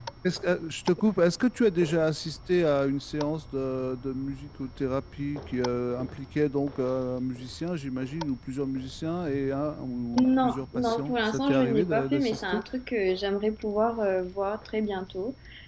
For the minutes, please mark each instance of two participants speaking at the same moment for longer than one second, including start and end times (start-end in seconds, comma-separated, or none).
10.2-12.6